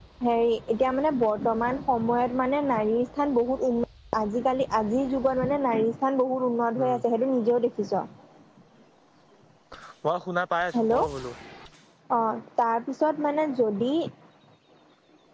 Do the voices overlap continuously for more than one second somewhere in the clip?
No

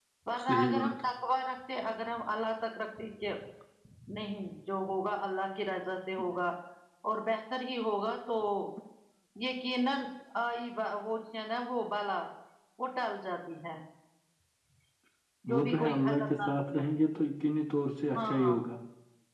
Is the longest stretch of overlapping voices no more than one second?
No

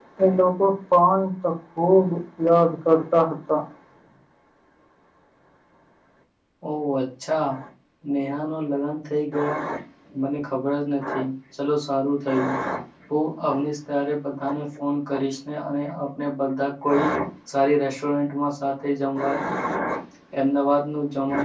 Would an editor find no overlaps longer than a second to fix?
Yes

